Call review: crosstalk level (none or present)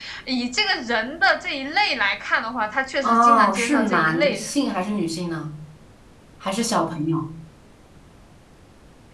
present